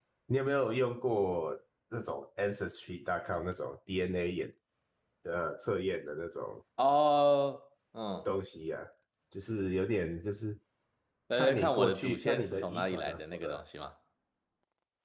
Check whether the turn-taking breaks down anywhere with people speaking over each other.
Yes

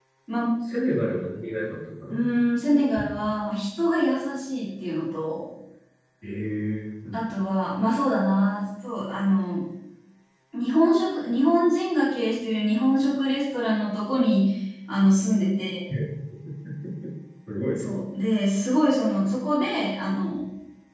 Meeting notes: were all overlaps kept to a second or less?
Yes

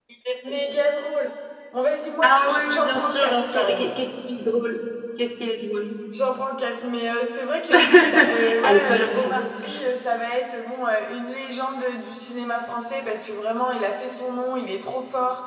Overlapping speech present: Yes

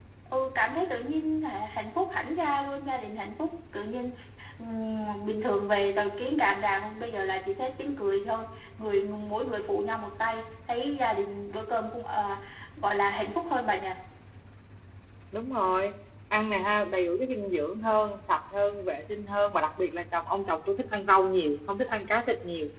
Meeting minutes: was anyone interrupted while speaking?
No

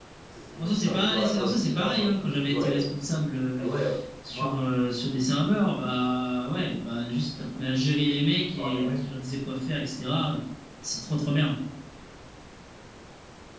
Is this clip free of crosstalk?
No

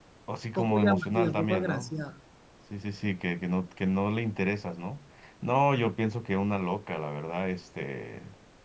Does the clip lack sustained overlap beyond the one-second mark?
No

